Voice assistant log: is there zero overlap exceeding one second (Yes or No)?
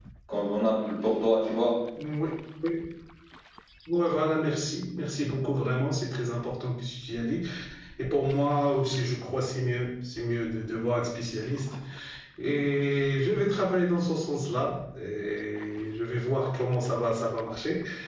Yes